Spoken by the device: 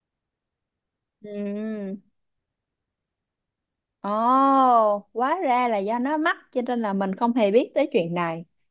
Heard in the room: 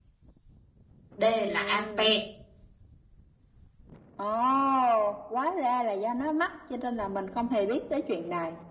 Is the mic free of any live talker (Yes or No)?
No